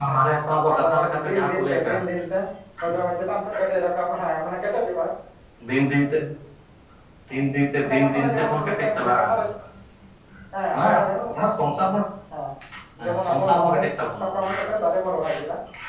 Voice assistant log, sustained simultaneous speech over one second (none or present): present